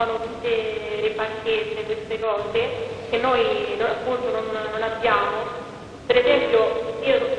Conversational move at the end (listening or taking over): listening